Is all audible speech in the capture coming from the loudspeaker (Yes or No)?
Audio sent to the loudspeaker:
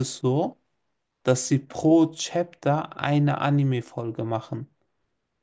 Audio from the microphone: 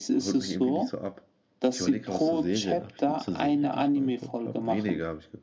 No